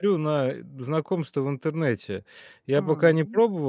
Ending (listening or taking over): listening